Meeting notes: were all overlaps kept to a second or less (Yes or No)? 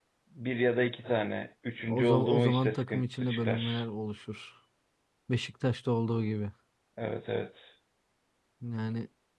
No